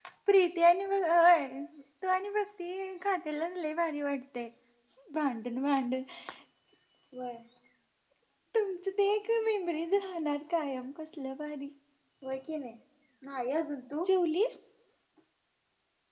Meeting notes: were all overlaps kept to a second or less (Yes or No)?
Yes